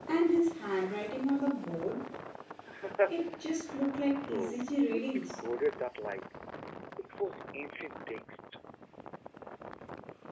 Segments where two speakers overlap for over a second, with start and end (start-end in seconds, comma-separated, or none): 4.2-5.4